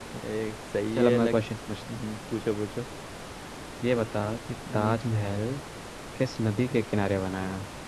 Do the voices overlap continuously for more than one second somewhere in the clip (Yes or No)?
No